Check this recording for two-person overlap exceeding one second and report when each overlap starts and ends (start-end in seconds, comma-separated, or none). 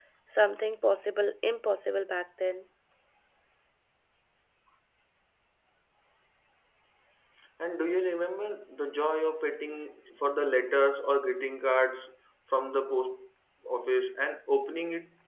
none